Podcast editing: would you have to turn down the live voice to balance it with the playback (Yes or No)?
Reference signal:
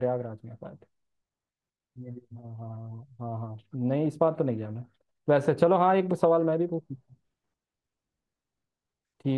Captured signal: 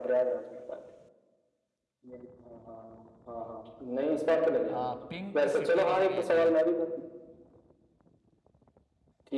No